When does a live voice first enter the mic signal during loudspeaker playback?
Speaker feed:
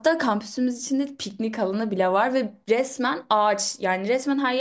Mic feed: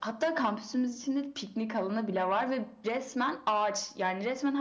none

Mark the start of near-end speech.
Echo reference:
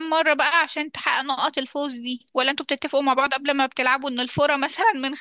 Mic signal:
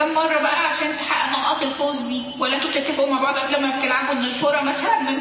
none

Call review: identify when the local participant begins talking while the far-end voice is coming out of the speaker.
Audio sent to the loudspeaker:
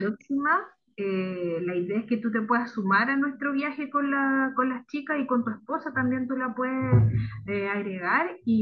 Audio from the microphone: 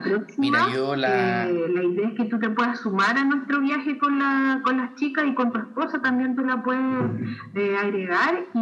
0.4 s

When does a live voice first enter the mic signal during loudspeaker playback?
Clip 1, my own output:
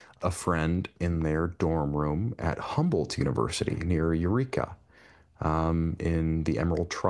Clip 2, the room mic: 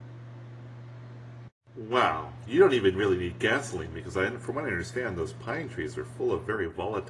1.8 s

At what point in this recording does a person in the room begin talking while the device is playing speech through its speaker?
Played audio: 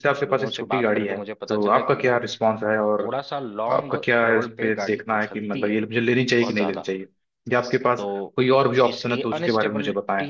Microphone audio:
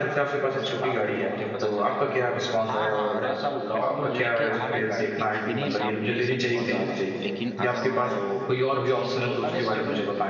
2.6 s

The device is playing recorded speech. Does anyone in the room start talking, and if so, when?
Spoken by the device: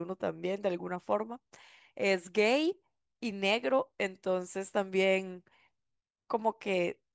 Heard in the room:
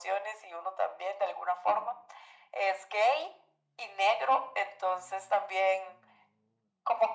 none

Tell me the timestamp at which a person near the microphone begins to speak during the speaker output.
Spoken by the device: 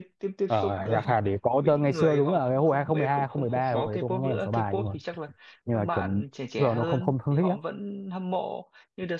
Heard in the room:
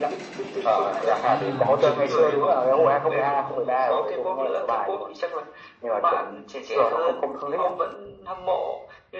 1.2 s

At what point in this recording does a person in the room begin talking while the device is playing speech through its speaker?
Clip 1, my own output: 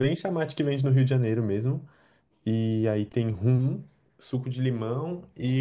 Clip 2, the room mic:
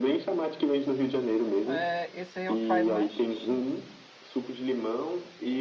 1.6 s

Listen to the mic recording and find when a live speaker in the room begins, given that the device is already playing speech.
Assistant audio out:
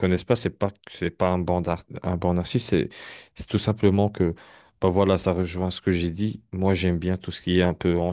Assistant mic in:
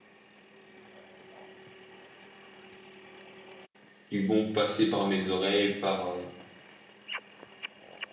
4.1 s

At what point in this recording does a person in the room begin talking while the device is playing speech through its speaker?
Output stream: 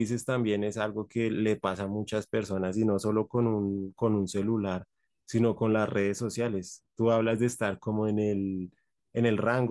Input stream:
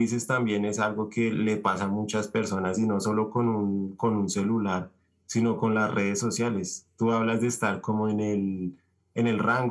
none

